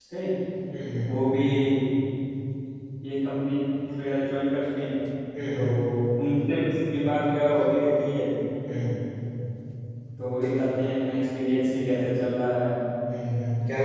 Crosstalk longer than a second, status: none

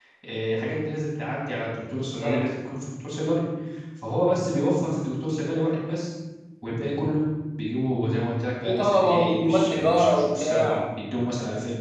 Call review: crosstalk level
present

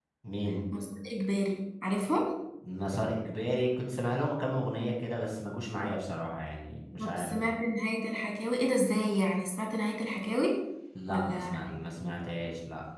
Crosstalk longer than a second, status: none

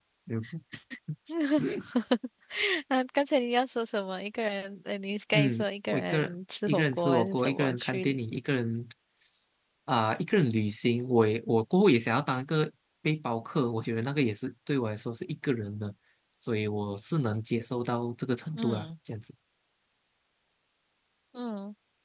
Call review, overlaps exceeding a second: present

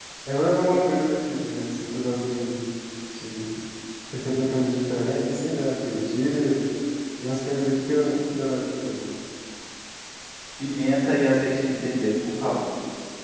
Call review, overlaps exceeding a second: none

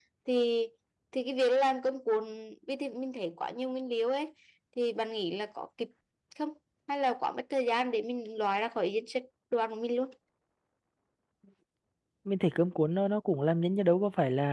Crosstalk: none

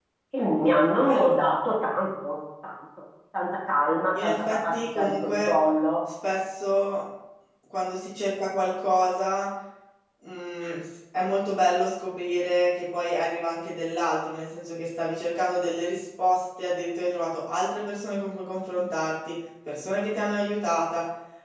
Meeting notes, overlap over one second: present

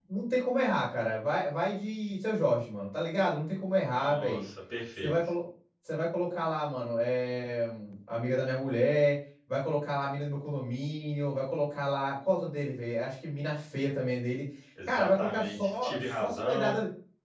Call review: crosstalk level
present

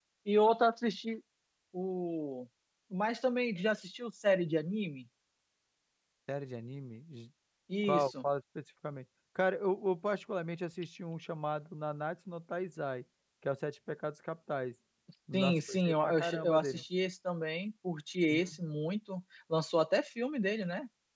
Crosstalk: present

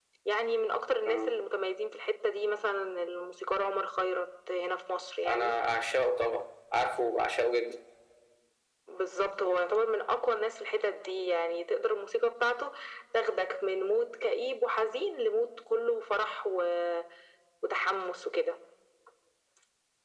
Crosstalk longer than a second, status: none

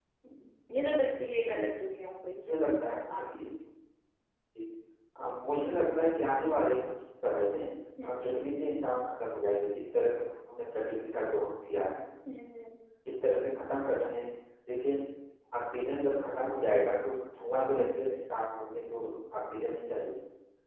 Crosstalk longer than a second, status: none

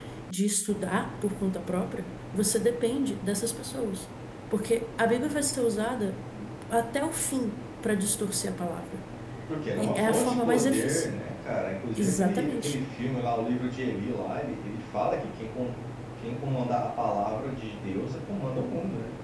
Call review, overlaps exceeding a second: present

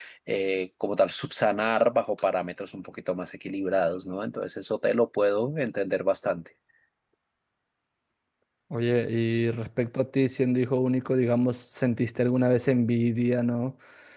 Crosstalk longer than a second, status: none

